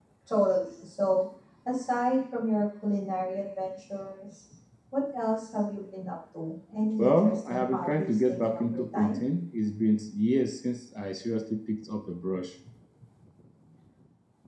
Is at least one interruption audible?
Yes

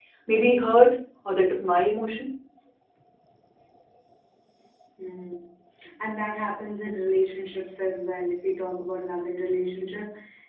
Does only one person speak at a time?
Yes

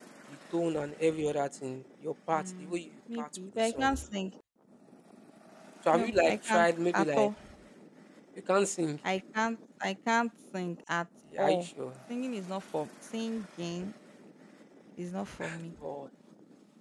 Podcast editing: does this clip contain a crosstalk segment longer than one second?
Yes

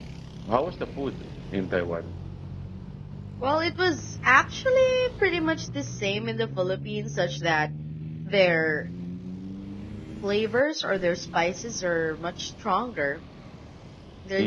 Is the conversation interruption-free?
Yes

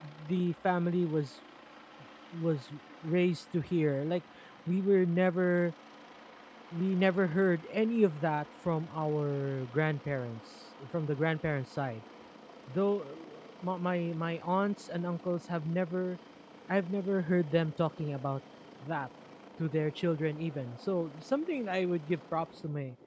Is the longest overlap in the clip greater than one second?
No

